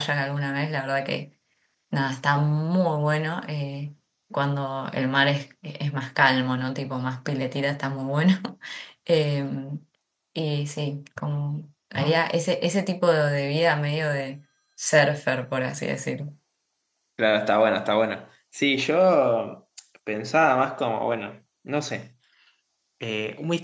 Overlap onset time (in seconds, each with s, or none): none